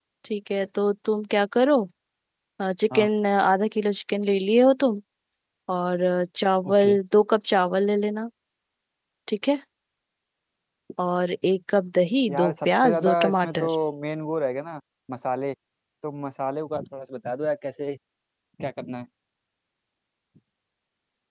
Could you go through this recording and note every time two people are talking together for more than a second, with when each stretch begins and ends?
12.3-13.7

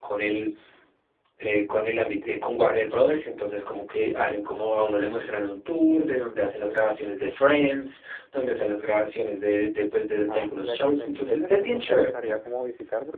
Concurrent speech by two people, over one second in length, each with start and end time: 10.3-12.3

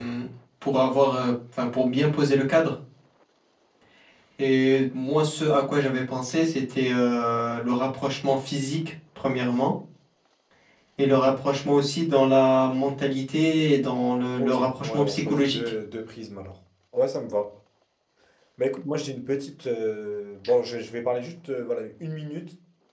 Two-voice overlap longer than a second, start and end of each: 14.4-15.6

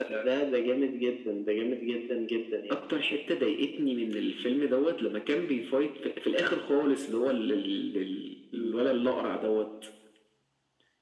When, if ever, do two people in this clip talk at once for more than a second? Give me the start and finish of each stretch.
none

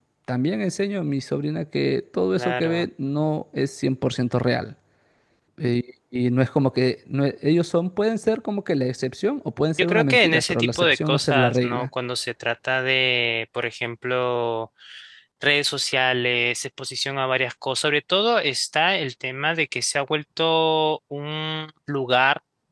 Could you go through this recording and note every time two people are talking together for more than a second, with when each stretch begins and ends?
9.8-11.9

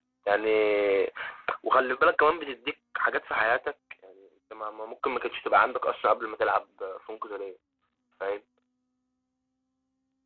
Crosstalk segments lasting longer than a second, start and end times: none

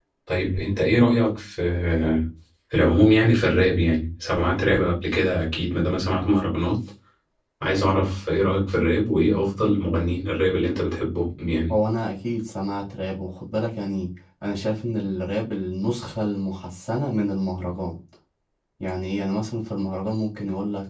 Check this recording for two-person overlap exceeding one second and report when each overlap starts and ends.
none

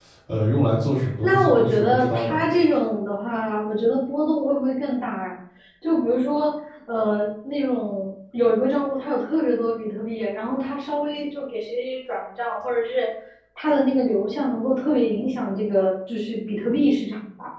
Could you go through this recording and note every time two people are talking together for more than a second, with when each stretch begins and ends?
1.2-2.4

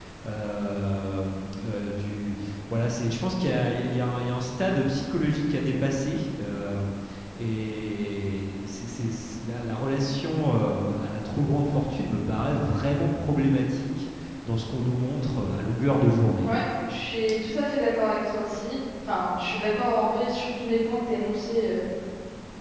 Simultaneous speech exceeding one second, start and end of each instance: none

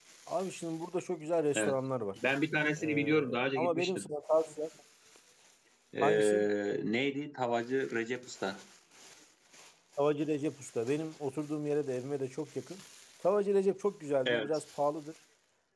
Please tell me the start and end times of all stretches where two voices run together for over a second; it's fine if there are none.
2.8-4.1

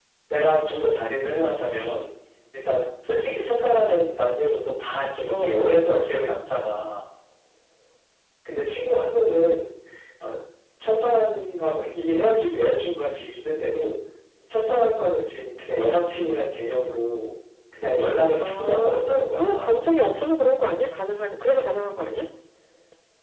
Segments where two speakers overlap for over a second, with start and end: 18.4-19.7

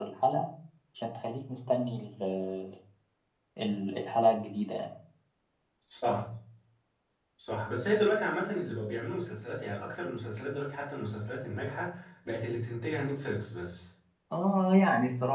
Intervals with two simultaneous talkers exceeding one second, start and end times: none

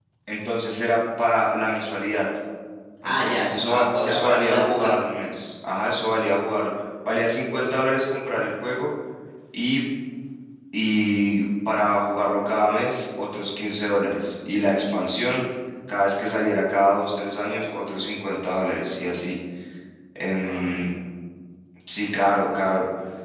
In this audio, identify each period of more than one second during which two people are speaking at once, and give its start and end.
3.0-4.9

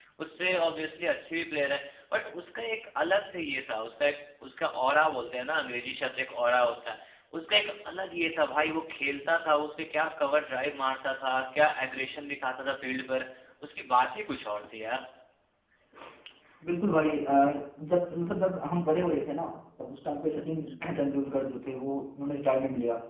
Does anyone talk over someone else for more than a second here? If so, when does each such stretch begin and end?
none

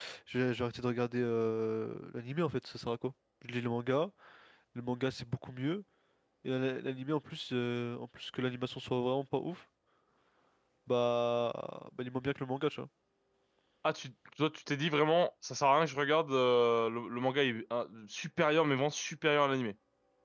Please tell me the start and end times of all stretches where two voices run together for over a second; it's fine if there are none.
none

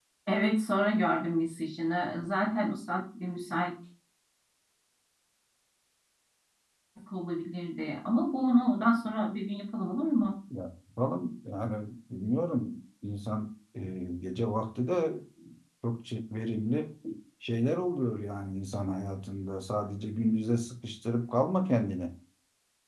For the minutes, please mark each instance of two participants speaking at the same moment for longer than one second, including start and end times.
none

